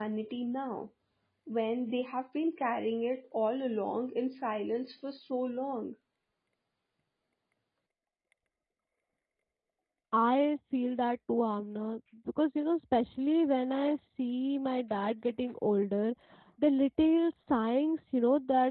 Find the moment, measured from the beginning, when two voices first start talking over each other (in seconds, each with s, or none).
none